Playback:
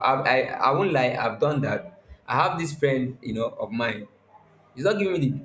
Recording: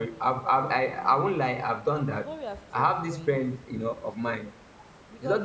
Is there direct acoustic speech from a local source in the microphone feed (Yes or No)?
Yes